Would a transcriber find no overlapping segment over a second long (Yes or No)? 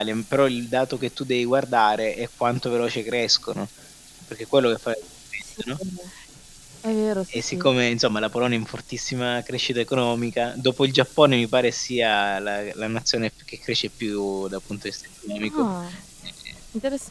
Yes